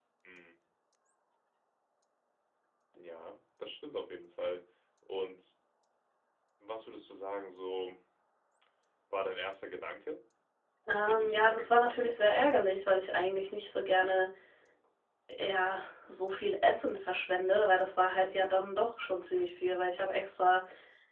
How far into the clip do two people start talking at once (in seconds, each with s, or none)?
11.1 s